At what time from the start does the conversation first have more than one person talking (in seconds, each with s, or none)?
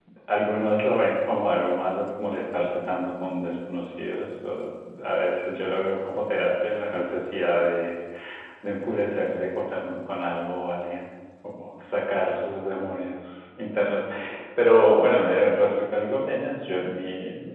none